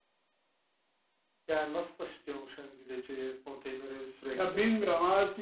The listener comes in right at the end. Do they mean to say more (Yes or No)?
Yes